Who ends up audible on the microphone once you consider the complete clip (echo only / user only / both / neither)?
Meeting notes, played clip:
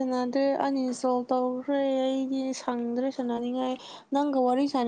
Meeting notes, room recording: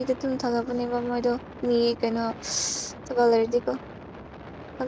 user only